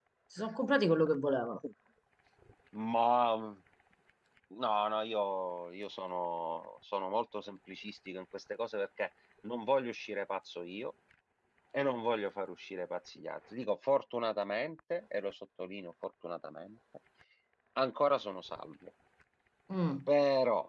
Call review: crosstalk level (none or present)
none